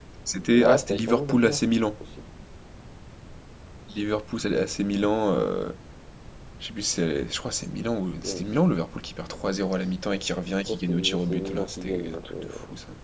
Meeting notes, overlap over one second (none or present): present